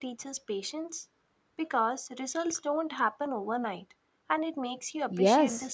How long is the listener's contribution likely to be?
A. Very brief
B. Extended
B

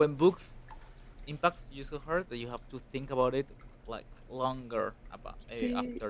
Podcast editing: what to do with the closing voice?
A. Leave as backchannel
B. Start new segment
A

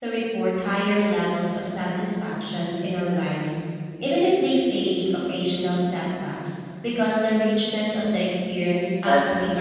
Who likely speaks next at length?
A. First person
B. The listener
B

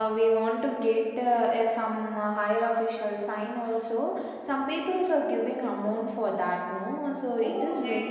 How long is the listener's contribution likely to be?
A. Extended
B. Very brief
A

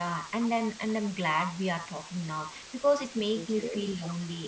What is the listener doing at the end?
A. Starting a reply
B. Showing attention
B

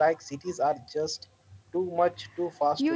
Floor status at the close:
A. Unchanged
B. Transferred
B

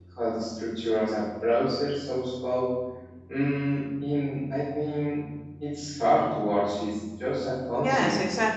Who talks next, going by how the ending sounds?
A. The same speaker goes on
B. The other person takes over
B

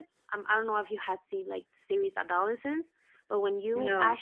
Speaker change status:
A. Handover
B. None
B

